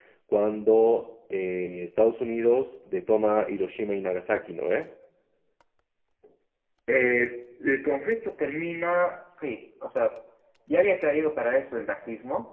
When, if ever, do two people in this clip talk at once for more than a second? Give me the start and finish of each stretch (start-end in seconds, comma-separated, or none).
none